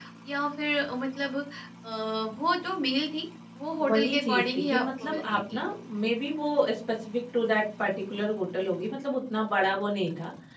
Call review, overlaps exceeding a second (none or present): present